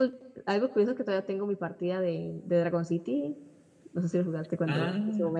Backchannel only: No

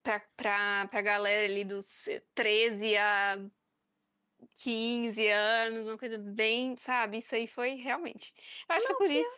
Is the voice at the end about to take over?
No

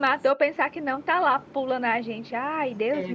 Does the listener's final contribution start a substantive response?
Yes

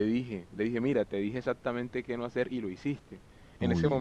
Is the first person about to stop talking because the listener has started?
No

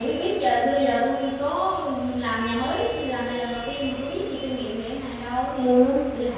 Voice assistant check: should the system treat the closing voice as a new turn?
Yes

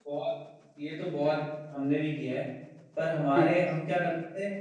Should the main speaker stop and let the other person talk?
No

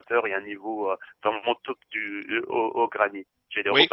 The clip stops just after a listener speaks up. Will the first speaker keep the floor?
No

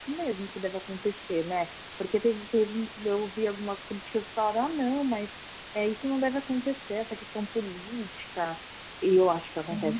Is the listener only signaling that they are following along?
No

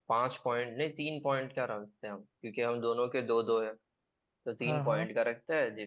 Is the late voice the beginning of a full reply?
No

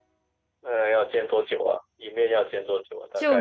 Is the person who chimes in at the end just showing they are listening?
No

